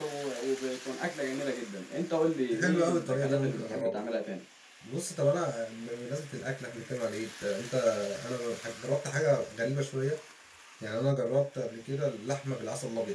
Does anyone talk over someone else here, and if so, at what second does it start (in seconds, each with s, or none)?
2.5 s